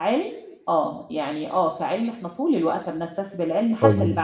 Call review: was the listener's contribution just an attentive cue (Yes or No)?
No